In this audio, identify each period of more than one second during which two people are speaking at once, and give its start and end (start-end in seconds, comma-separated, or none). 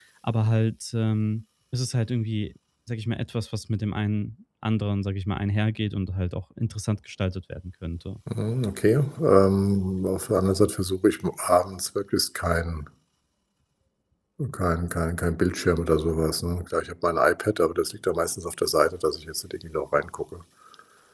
none